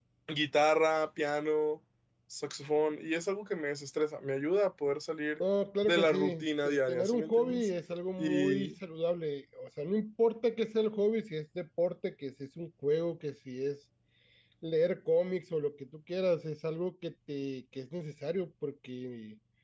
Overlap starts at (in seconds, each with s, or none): 5.9 s